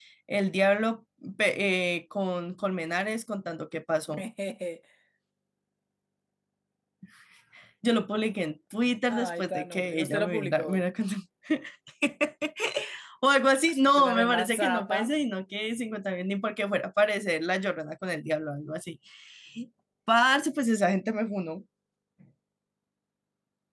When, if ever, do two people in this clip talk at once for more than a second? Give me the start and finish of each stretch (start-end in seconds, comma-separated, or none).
9.1-10.8, 13.7-15.0